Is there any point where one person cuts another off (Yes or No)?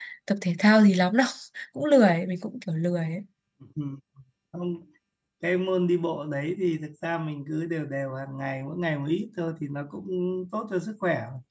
No